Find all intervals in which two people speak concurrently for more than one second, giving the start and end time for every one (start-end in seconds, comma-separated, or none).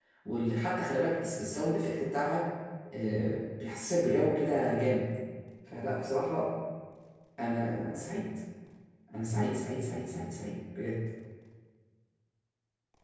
none